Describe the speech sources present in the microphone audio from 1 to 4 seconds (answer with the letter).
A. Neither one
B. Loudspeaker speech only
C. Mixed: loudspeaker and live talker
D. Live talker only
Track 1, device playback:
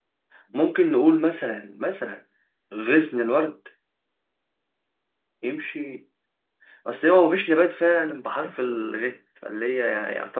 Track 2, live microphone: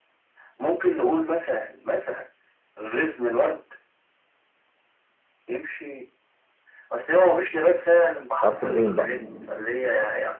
B